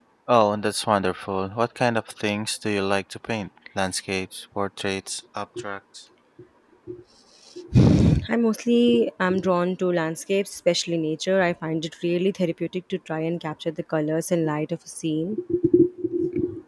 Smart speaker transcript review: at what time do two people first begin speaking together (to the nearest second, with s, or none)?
none